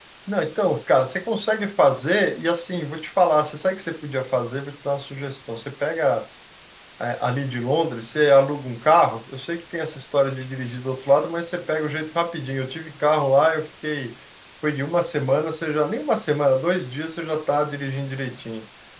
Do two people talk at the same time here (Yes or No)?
No